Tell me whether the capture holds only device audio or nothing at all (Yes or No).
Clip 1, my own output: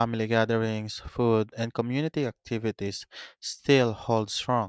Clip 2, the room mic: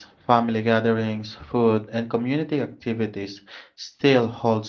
Yes